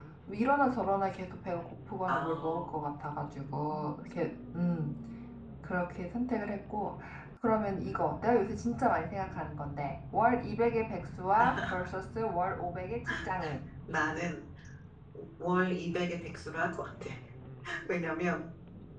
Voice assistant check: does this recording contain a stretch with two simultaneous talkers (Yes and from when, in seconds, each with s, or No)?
Yes, from 2.1 s